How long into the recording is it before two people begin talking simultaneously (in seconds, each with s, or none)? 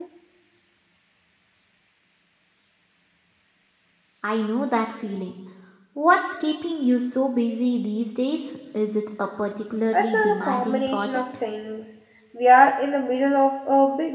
9.9 s